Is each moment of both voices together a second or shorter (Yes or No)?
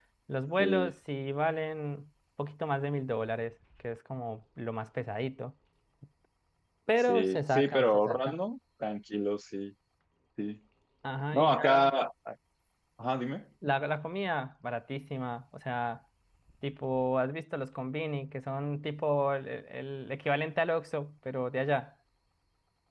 No